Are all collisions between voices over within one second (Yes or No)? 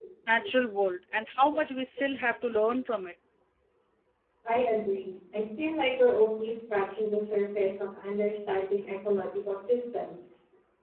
Yes